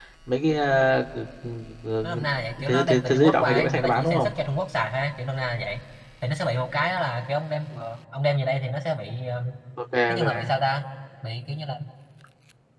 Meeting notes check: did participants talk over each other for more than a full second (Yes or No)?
Yes